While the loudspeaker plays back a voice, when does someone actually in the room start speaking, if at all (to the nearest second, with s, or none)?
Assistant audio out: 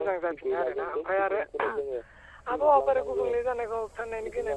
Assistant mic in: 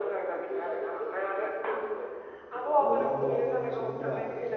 3 s